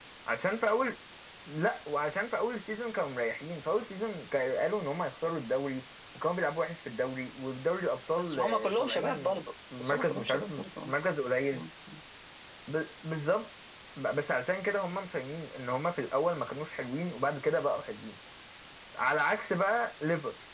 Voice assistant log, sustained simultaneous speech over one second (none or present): present